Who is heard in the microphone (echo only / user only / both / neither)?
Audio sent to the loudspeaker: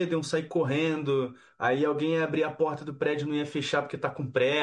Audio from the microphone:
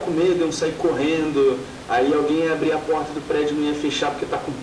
echo only